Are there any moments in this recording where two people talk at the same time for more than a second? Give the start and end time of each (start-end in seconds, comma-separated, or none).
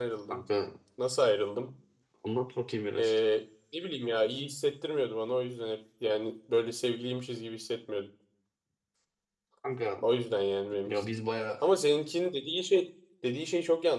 none